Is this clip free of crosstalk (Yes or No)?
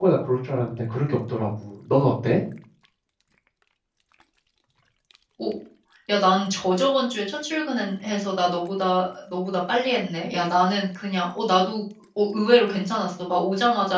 Yes